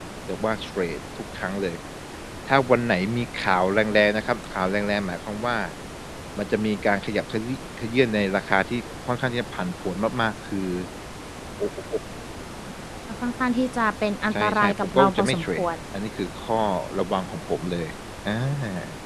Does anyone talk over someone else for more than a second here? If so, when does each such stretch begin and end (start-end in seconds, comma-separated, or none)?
14.3-15.7